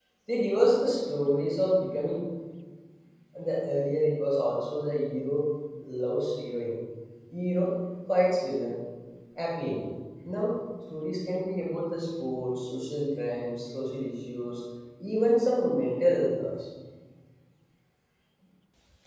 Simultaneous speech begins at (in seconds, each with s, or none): none